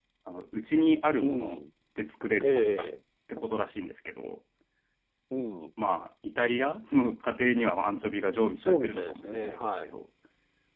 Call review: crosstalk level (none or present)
present